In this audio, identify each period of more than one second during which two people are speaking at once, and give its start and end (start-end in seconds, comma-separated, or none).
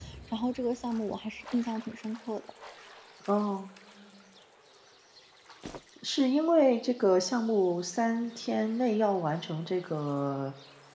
none